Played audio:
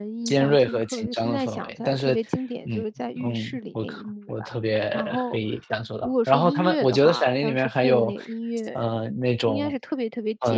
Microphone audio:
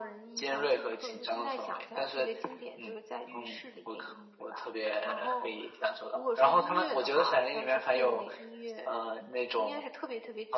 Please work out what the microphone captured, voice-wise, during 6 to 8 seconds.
echo only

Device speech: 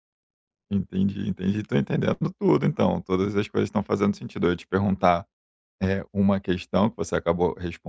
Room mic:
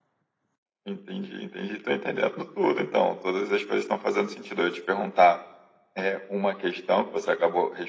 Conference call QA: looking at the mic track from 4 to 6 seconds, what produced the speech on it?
echo only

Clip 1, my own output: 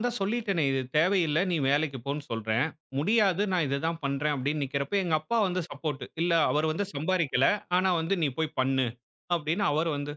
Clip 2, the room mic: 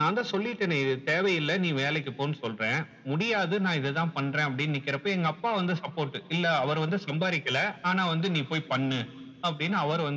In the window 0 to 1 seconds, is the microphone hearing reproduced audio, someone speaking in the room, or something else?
echo only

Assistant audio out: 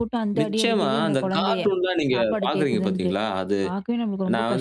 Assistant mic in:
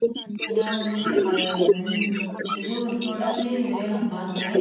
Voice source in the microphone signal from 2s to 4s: both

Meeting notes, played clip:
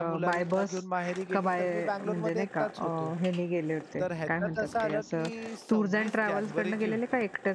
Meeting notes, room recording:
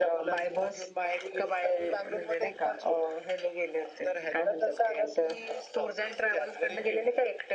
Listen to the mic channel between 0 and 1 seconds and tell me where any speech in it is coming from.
echo only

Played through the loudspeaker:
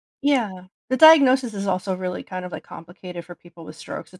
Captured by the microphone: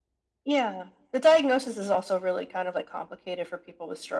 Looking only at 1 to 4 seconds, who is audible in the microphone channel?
echo only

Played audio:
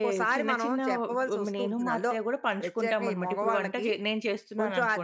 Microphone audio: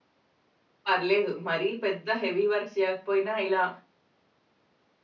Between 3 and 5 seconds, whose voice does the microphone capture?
user only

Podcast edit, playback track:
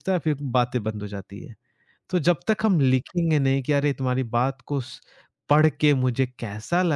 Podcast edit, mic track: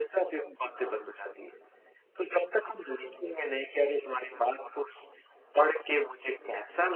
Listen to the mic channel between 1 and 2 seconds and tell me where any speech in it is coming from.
echo only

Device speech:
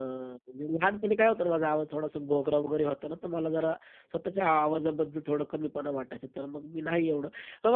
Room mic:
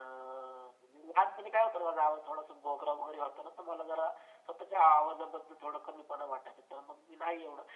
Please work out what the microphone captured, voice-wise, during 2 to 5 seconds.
echo only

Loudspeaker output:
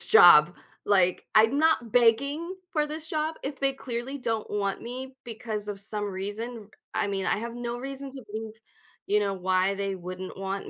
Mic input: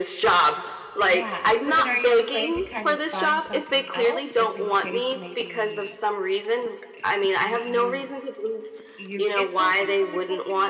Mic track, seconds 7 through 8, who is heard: both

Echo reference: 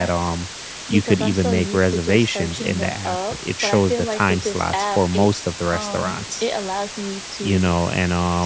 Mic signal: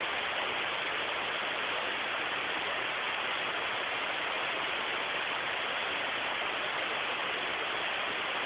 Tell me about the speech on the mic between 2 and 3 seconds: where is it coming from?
neither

